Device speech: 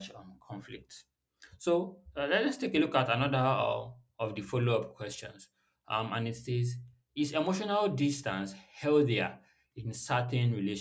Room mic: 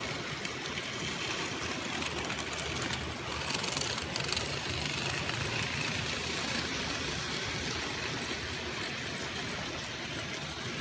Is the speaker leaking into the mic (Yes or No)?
No